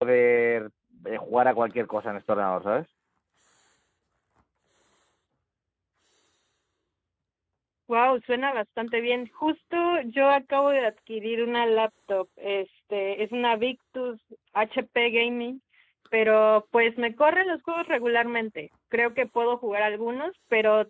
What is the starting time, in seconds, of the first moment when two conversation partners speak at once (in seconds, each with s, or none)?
none